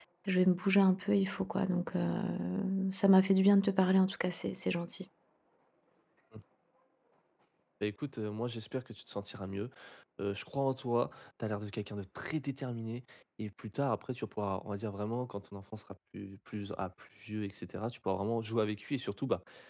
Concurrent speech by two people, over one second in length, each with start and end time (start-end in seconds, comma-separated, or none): none